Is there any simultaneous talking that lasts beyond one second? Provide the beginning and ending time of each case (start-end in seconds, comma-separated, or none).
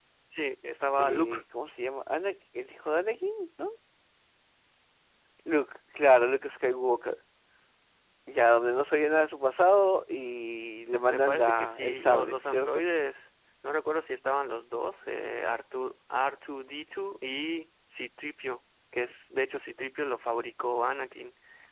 11.1-12.8